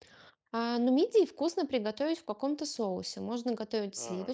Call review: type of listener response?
listening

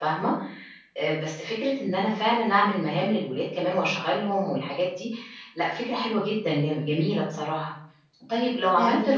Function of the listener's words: listening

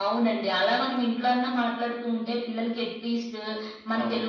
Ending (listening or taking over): listening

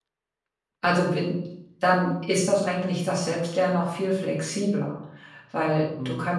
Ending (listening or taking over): listening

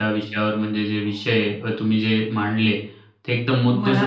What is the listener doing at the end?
listening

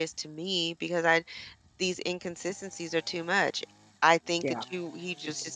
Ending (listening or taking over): listening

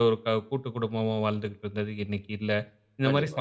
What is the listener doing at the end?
listening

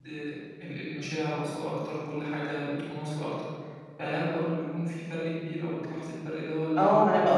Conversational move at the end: taking over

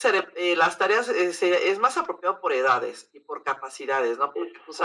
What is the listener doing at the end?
listening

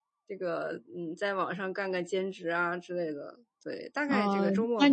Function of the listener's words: taking over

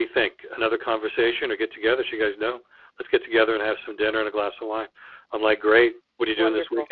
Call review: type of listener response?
listening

